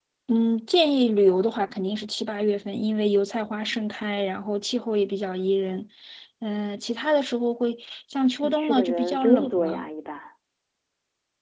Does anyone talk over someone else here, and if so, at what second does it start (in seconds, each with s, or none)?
8.4 s